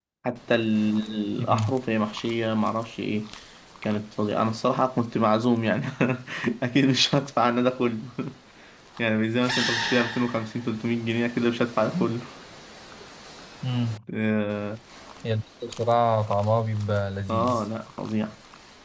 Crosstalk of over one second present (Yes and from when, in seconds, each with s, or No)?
No